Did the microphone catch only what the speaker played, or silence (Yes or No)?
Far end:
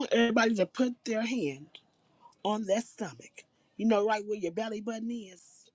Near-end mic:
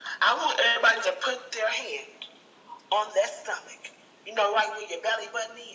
Yes